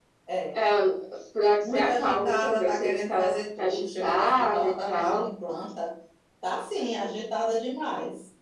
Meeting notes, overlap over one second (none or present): present